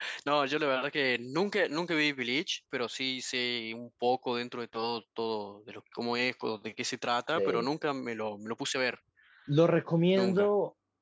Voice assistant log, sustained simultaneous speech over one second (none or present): none